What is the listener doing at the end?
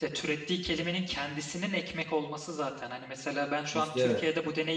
listening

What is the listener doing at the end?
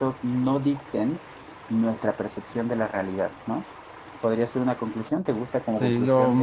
taking over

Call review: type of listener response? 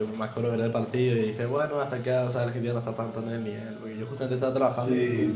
listening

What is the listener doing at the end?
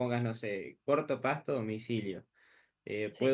listening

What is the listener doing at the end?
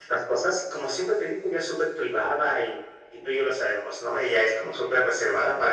listening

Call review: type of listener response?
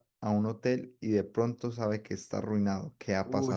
taking over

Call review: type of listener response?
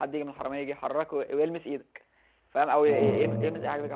listening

